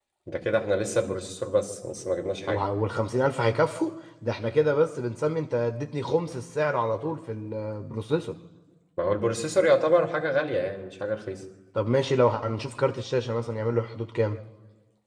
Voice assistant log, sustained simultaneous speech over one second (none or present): none